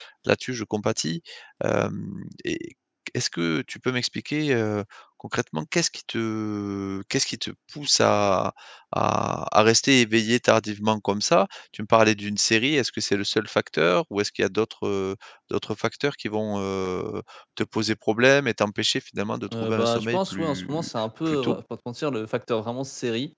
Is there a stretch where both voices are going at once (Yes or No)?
Yes